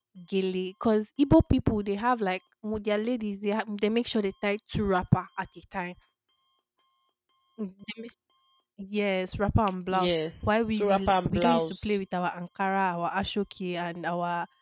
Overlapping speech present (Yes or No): Yes